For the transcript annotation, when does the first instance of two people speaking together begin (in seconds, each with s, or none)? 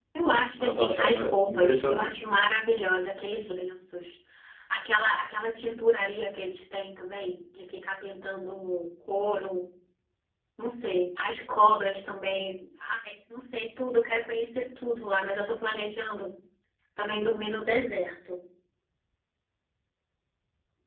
0.6 s